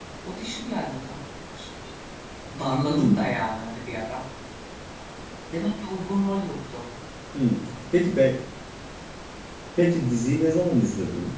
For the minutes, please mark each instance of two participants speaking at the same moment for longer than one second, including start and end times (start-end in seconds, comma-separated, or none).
none